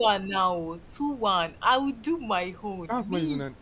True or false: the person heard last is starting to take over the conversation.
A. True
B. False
A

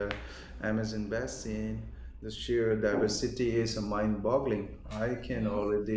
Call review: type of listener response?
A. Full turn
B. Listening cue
B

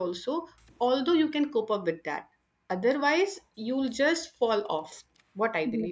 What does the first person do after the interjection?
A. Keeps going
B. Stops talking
B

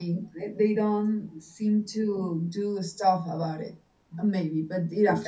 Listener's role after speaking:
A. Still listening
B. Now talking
A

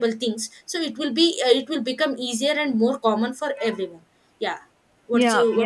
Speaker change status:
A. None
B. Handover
B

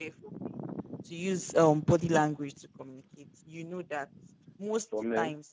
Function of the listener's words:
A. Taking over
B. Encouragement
B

